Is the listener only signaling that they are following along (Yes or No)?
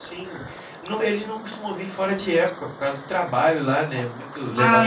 Yes